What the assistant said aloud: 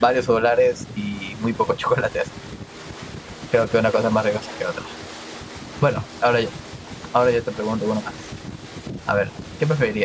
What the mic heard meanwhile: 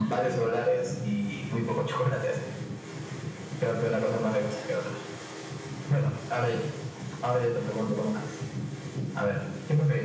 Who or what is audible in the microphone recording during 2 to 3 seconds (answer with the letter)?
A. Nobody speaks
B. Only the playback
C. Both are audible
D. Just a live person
B